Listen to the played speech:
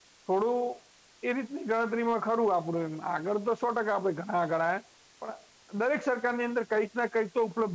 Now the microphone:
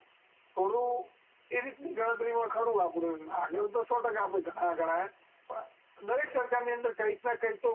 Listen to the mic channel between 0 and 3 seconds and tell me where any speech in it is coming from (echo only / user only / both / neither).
echo only